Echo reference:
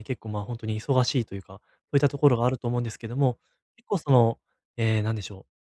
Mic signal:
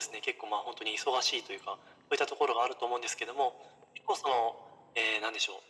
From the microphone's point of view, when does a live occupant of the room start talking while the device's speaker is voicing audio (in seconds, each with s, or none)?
none